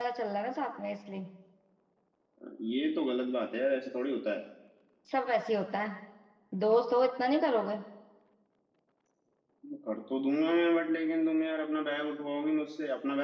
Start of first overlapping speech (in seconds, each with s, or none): none